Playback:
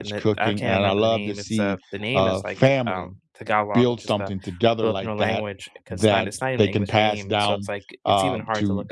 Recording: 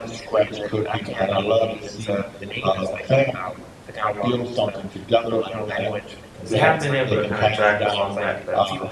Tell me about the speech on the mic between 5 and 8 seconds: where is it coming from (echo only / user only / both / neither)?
both